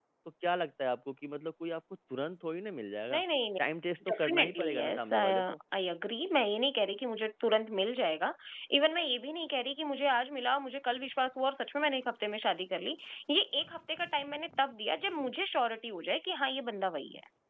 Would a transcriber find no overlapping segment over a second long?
No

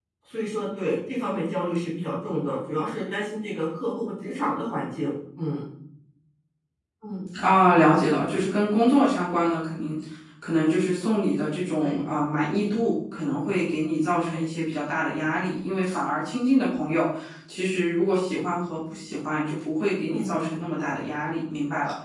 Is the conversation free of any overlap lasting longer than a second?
Yes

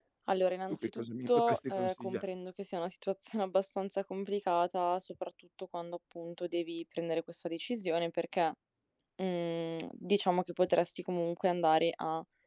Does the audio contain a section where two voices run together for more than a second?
Yes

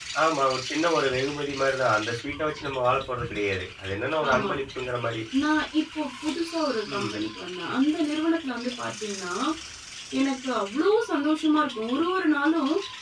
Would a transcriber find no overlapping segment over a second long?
Yes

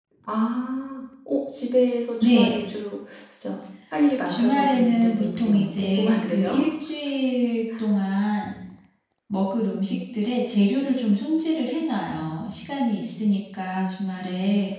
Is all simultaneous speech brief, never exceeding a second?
No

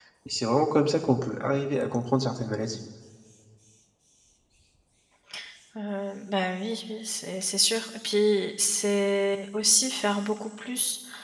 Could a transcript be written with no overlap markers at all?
Yes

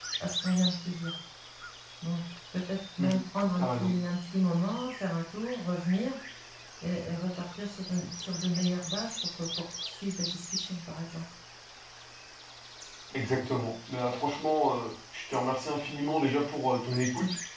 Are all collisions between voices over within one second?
Yes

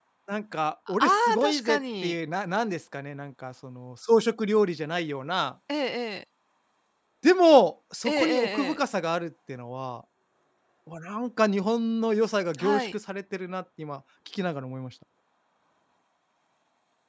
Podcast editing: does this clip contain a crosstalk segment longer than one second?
Yes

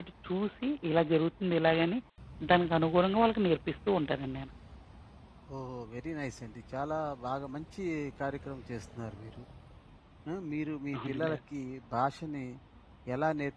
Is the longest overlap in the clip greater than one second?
No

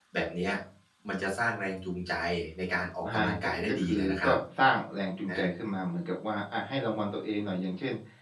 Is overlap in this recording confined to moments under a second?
No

